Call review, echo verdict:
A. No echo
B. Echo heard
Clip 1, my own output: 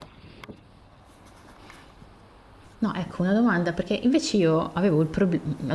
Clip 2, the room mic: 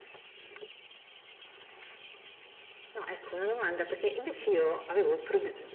B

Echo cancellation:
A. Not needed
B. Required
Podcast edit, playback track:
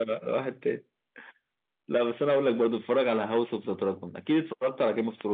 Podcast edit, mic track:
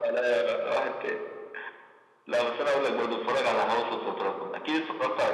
B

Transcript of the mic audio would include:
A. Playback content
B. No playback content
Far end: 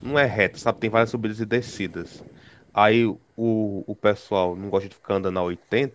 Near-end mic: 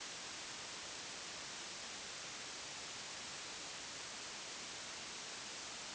B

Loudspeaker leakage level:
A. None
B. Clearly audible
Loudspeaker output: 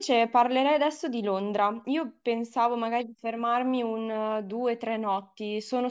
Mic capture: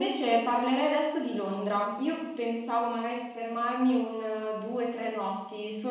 B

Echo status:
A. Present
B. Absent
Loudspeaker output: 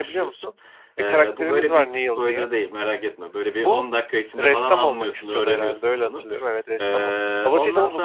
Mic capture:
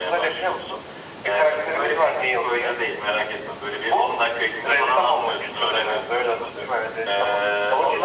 A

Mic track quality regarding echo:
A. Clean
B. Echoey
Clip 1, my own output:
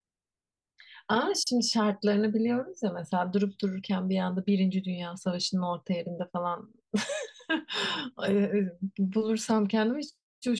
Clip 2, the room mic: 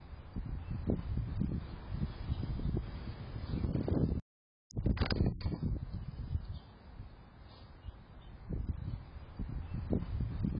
A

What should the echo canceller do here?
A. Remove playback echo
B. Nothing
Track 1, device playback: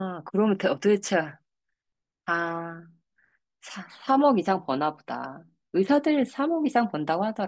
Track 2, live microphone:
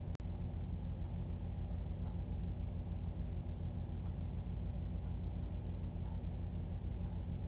B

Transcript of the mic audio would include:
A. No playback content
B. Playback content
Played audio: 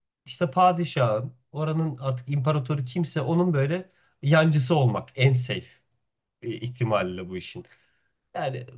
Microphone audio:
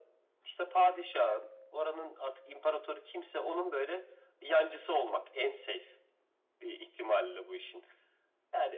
B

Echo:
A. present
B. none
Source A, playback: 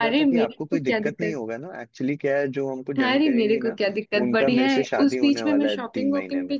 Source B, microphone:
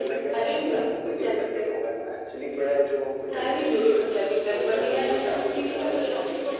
A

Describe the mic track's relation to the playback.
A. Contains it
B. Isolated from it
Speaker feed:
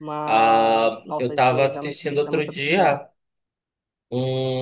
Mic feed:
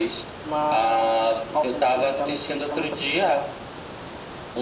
A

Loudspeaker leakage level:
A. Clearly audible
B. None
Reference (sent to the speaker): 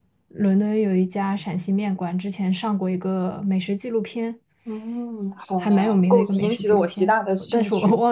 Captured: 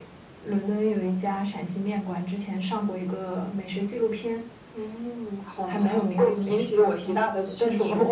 A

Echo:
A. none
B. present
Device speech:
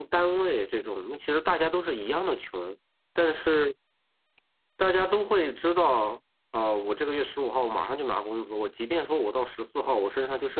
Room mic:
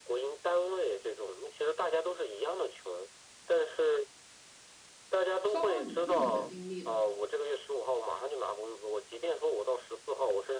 B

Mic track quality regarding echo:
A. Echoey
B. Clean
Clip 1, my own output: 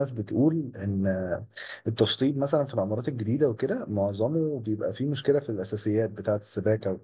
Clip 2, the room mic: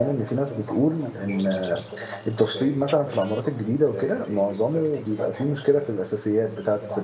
A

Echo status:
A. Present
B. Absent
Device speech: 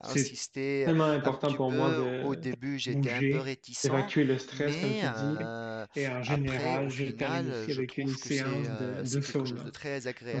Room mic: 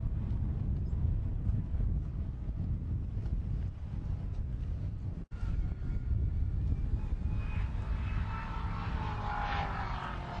B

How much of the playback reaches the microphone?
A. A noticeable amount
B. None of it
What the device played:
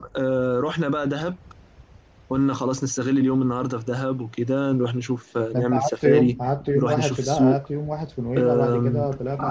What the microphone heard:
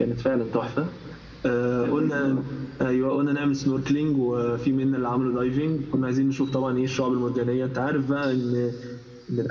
B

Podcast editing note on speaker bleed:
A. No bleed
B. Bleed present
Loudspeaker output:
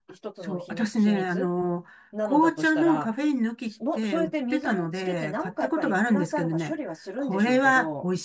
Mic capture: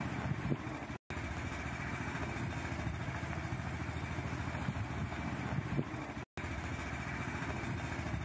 A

